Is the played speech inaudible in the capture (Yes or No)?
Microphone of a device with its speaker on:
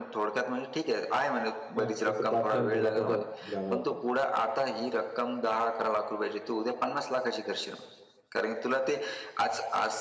No